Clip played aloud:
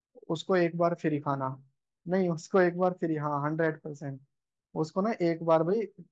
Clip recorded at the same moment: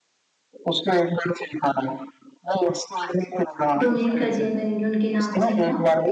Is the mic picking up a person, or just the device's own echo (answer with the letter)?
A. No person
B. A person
B